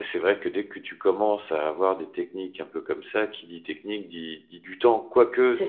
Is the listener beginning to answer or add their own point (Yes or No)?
No